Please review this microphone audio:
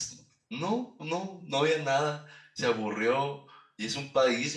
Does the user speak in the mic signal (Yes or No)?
Yes